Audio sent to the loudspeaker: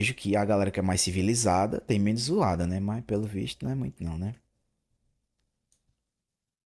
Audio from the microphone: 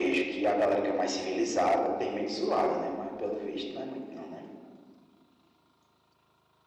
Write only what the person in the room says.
none

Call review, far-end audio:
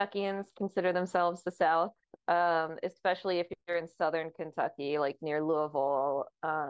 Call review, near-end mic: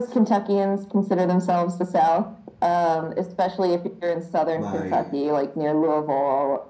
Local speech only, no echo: my

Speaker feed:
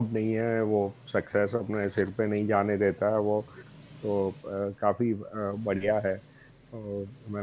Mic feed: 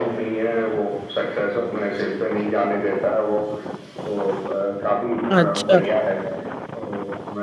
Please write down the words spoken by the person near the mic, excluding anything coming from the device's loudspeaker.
अच्छा

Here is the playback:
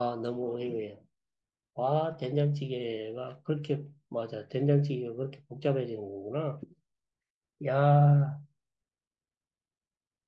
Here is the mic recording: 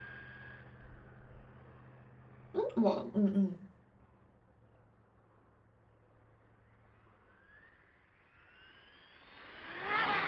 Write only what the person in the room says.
응? 뭐, 응, 응.

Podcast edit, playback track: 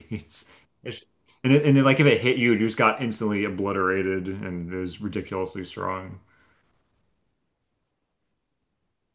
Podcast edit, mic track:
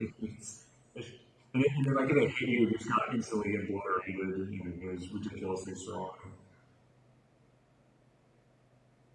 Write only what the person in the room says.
none

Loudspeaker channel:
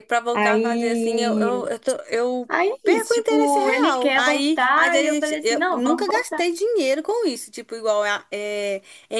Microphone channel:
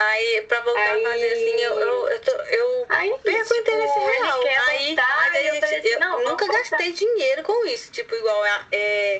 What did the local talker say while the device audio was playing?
none

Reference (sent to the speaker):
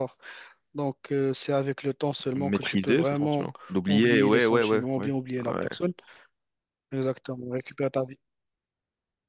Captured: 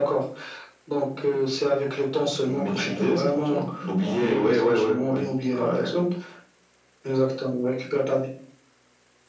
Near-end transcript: none

